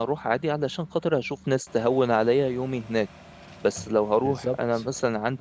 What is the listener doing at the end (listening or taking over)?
listening